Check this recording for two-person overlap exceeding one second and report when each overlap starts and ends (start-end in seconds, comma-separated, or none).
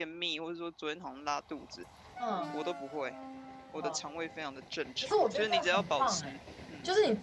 5.0-6.3